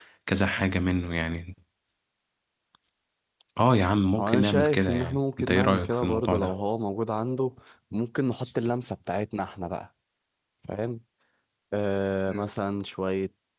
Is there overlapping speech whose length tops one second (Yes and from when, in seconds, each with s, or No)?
Yes, from 4.2 s